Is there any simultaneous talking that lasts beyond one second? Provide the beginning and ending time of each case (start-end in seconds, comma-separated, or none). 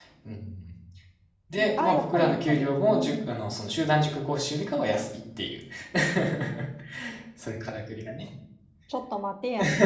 1.8-3.4